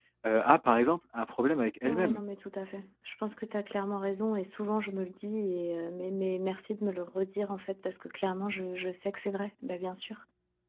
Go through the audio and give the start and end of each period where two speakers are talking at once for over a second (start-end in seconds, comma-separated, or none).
none